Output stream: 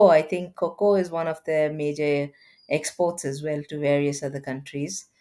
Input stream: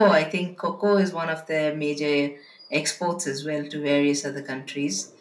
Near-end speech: none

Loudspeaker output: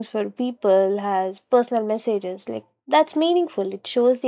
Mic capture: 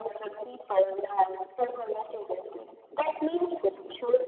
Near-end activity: none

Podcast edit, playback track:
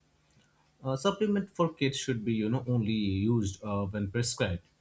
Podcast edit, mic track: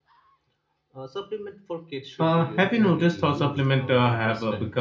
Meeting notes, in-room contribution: present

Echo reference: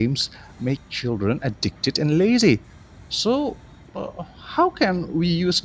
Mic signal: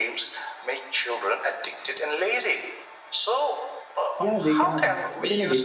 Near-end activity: present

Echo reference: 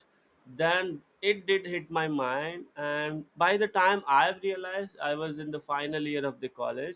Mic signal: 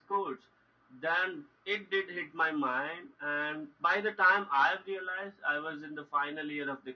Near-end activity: none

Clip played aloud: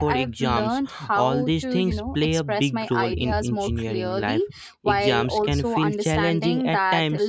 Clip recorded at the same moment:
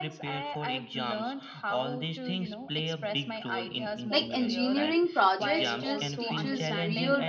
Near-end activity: present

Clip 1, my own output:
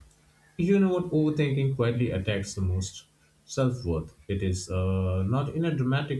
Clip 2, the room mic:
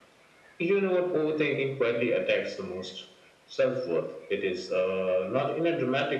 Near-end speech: none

